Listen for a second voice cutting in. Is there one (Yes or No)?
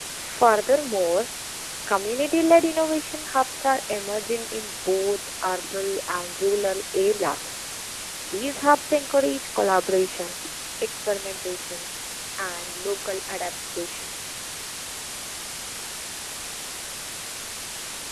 No